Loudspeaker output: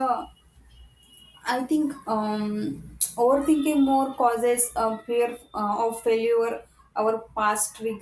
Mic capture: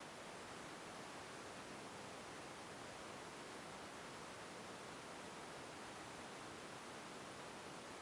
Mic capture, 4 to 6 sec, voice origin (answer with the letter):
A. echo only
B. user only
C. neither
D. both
C